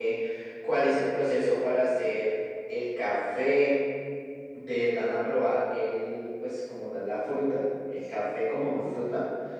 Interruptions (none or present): present